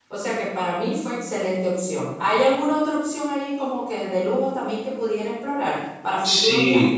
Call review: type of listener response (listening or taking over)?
taking over